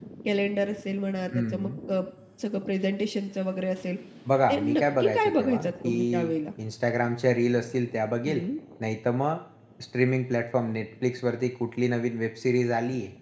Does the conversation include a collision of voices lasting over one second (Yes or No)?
Yes